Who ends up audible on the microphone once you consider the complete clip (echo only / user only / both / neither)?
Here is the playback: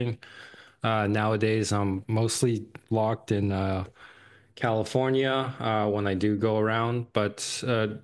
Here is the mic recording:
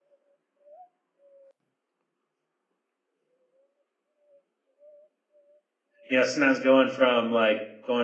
user only